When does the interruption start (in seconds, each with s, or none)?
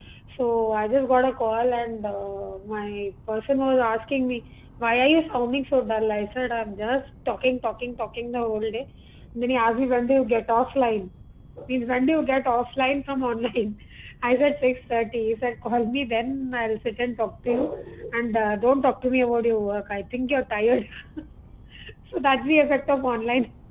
none